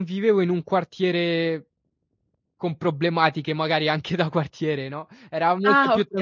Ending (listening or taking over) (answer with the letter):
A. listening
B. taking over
A